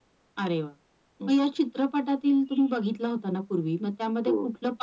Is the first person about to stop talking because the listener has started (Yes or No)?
No